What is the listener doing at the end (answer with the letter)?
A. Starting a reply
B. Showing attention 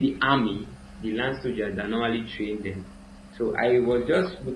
B